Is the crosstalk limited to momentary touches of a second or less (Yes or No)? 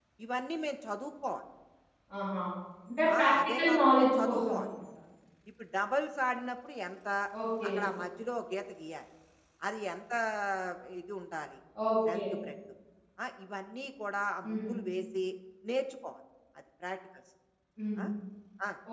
No